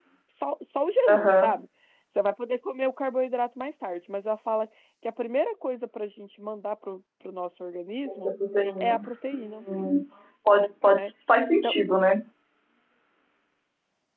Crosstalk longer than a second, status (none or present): none